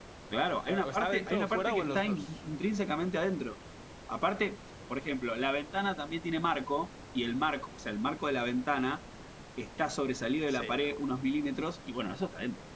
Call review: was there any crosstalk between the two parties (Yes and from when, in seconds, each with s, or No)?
Yes, from 0.7 s